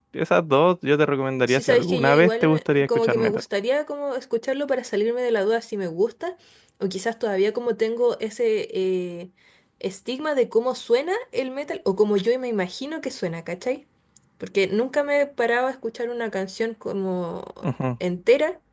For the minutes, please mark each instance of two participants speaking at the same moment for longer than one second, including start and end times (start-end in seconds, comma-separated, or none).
1.5-3.4